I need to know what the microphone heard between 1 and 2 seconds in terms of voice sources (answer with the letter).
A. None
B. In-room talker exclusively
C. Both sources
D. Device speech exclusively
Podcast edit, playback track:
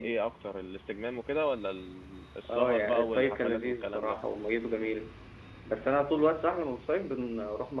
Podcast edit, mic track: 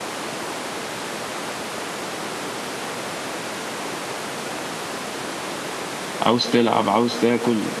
A